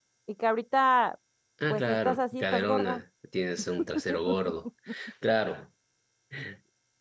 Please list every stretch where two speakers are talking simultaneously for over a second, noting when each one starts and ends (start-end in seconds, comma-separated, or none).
1.7-3.0